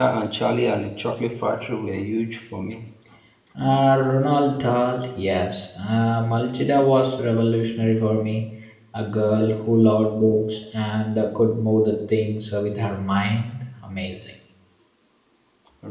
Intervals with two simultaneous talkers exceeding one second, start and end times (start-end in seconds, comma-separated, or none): none